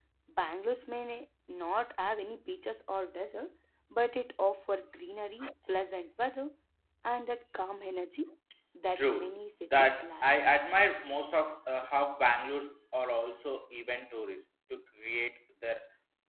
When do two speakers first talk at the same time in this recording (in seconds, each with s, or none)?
9.0 s